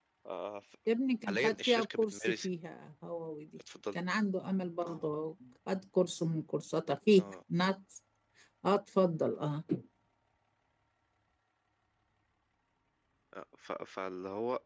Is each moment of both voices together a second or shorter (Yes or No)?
No